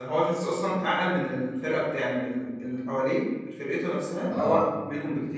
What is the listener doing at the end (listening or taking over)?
listening